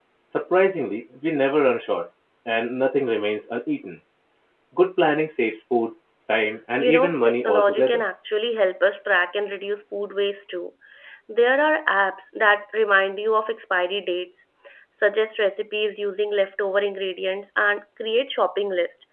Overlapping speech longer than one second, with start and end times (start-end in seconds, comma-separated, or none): 6.8-8.0